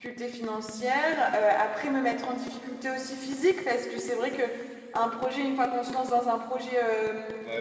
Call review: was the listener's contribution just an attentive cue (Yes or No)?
No